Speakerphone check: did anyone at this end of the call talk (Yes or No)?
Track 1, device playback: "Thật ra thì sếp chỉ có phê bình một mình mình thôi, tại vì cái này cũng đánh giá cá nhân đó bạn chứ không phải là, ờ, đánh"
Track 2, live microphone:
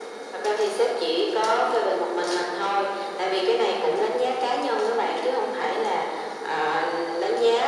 No